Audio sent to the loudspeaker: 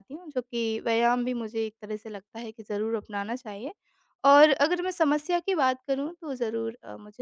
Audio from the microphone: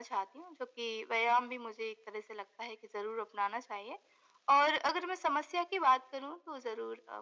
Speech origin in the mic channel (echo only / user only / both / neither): echo only